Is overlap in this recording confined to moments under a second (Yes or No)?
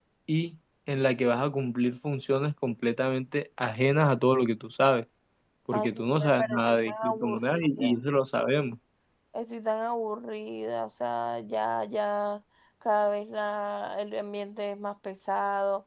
No